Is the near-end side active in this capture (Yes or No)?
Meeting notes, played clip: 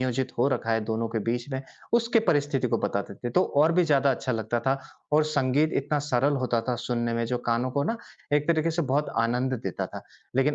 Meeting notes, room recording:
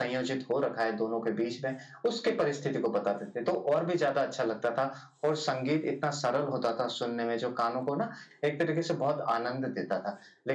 No